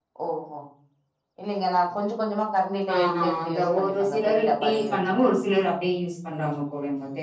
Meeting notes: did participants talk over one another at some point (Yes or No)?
Yes